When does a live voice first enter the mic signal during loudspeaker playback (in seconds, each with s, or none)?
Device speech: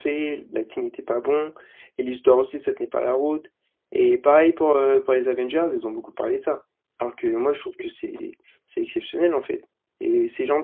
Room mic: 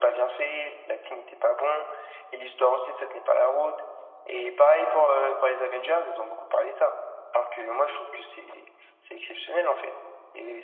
none